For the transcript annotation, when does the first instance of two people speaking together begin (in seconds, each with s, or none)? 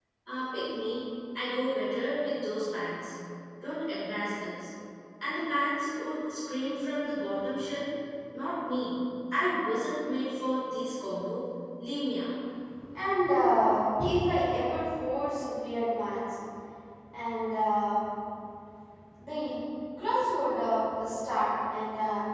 none